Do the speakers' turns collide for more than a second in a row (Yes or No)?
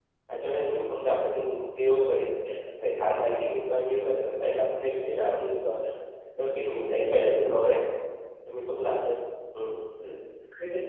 No